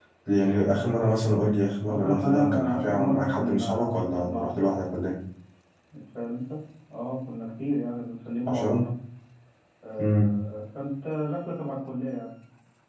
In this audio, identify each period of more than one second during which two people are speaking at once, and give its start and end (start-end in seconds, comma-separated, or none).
1.9-4.5